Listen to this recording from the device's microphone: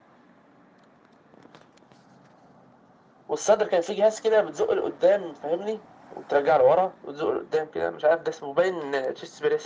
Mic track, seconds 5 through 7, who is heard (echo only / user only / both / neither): echo only